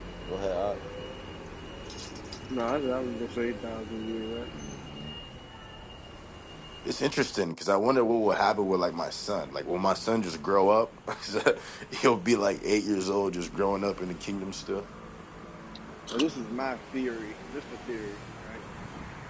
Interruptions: none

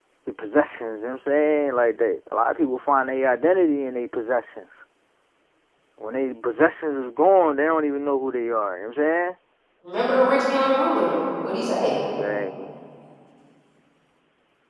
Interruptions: none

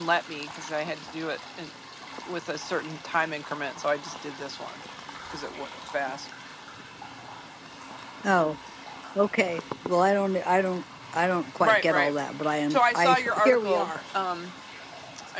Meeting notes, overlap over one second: present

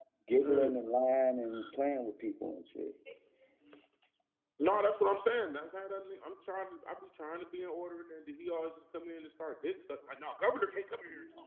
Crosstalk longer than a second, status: none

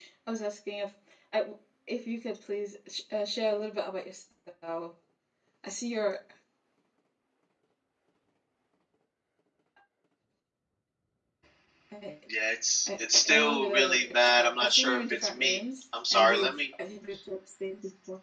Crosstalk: present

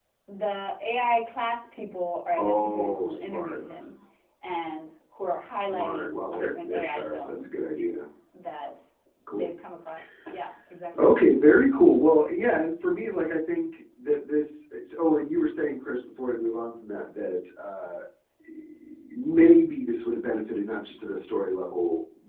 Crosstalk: present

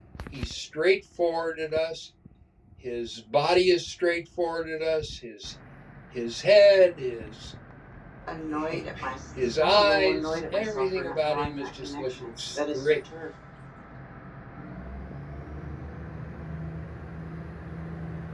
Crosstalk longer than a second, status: present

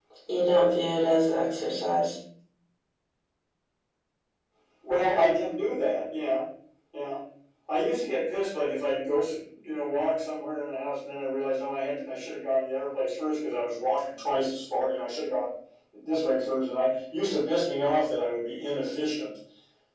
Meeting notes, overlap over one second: none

